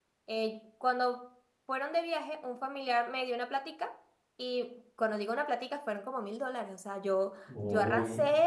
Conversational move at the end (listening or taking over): listening